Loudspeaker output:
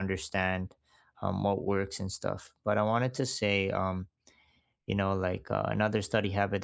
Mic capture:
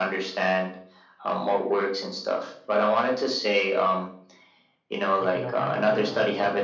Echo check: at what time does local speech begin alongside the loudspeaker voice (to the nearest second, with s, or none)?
5 s